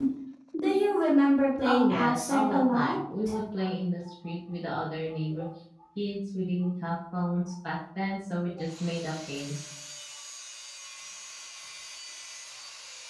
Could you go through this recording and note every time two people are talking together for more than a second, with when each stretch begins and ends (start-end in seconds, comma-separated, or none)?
1.6-3.0